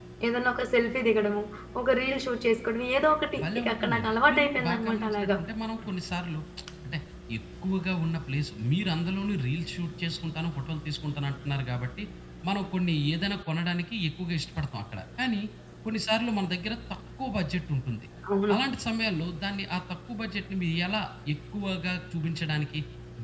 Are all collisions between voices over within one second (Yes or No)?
No